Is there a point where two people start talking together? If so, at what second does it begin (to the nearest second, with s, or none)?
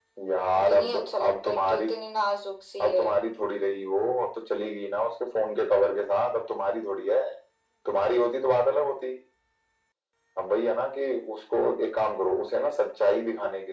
1 s